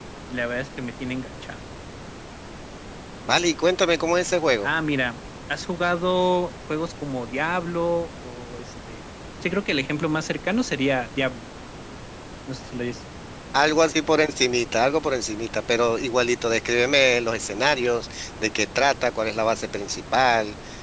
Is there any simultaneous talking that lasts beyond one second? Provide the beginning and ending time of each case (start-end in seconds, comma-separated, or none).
none